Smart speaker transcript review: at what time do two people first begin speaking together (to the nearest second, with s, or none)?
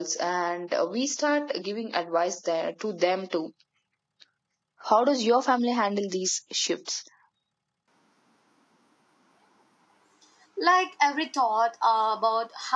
none